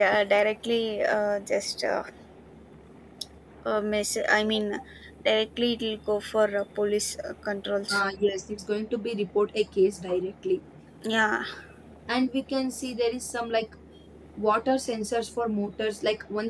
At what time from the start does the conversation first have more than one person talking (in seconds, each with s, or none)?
none